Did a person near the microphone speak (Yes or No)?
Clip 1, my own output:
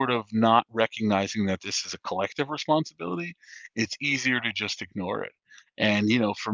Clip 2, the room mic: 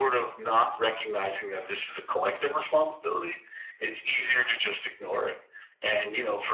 No